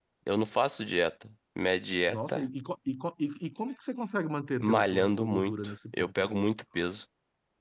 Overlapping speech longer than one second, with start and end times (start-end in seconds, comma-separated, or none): 4.6-6.3